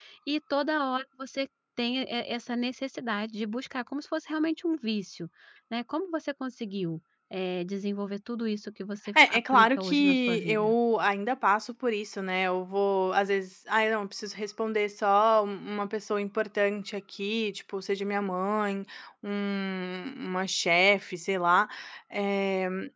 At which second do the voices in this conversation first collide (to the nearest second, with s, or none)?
9 s